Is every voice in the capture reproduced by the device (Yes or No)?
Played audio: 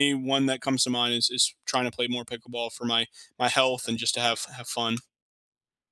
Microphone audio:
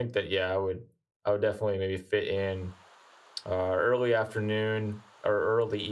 No